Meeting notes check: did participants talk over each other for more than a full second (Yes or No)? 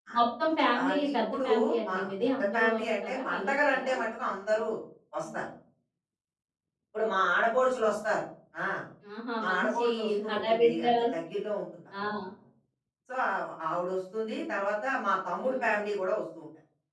Yes